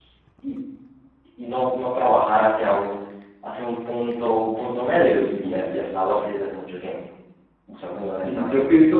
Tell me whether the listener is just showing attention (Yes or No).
No